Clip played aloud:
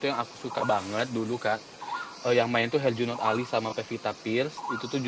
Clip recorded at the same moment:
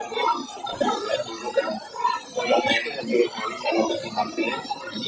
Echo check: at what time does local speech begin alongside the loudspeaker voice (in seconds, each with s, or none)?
none